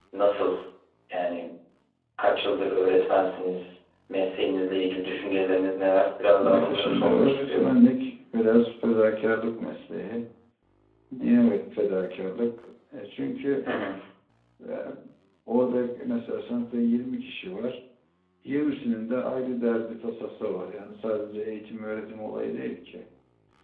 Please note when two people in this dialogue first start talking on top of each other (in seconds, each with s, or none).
6.4 s